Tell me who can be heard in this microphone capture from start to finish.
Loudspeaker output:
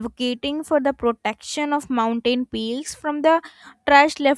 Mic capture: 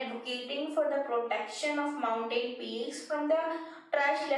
echo only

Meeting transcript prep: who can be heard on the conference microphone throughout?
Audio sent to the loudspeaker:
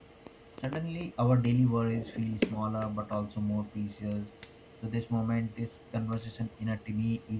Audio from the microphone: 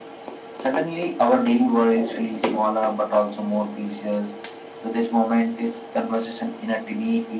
echo only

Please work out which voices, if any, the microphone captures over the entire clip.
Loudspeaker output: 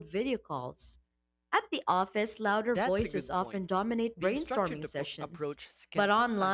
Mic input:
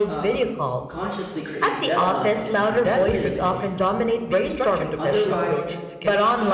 both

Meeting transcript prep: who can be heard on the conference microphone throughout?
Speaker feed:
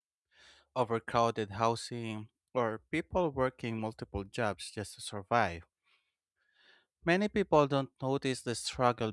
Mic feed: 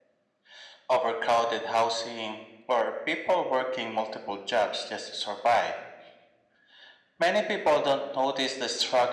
echo only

